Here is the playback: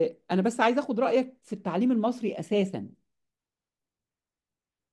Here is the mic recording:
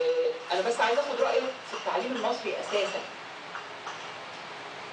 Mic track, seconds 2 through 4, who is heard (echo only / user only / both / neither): echo only